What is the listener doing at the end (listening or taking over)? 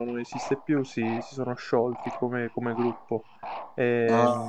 listening